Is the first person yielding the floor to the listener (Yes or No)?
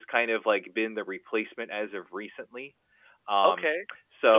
Yes